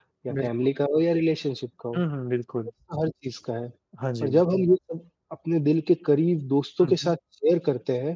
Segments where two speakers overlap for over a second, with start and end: none

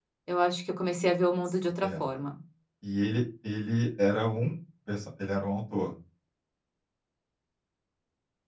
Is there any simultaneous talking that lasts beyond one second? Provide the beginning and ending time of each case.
none

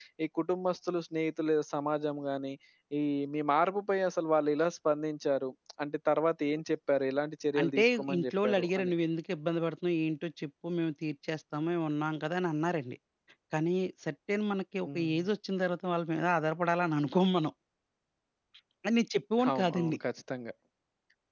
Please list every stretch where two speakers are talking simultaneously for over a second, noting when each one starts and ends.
7.6-8.9

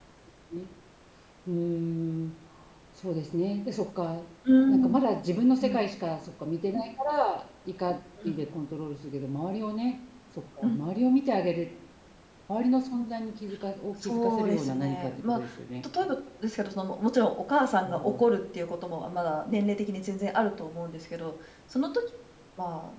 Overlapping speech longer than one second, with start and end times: 14.0-15.4

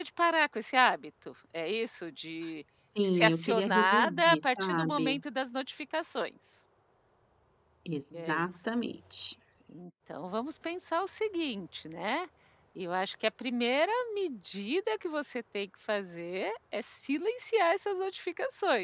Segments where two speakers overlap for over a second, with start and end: 3.0-5.2

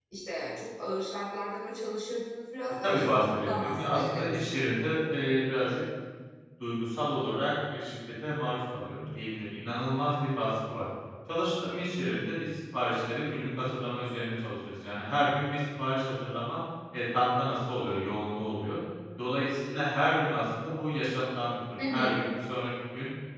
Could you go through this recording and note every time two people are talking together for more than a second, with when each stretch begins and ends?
2.8-4.6

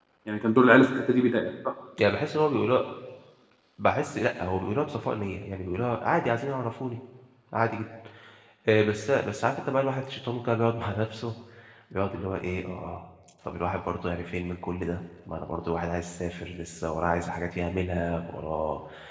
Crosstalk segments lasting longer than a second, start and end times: none

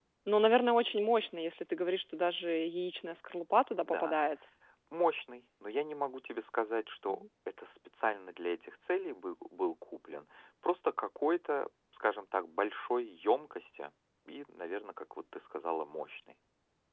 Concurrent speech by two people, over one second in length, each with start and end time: none

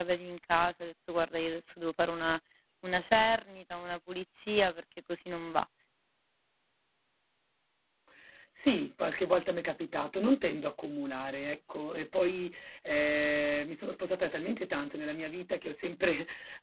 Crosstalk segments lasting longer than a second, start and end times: none

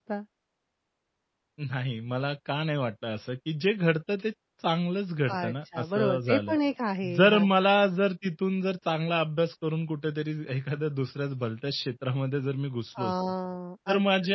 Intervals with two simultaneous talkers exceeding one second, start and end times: 5.3-6.5

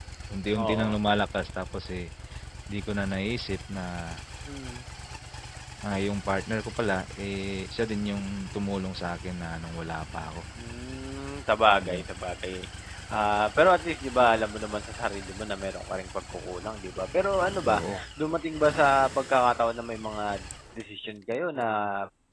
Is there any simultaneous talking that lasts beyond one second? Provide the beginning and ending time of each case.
none

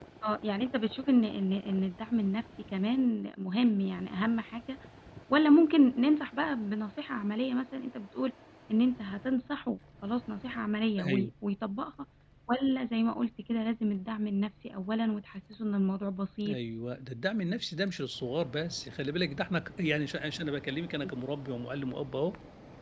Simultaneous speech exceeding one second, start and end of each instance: none

